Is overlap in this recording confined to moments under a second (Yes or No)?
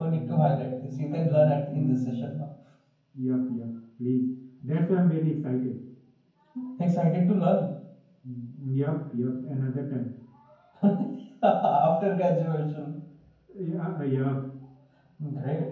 No